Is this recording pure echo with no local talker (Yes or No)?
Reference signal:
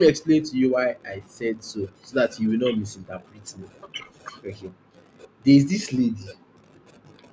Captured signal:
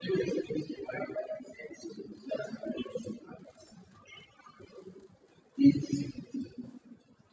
Yes